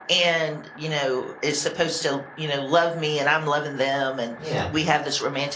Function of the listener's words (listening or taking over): listening